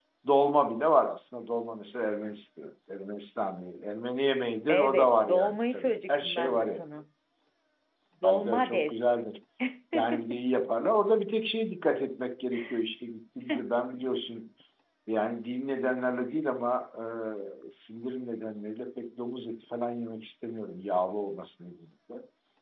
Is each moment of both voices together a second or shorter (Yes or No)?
No